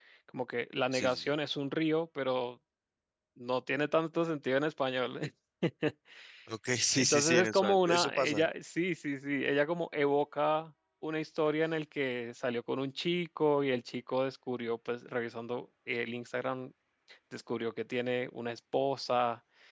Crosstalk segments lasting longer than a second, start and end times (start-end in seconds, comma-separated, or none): 6.9-8.5